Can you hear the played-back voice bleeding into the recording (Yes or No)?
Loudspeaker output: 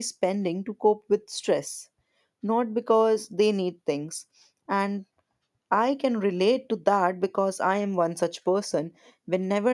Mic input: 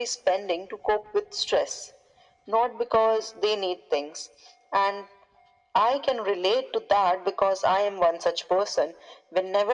Yes